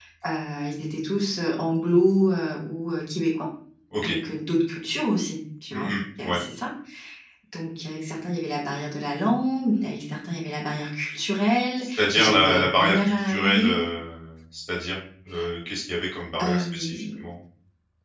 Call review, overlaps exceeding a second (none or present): present